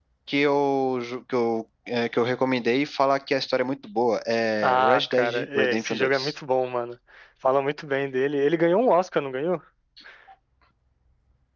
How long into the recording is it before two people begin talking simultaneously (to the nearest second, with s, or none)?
5 s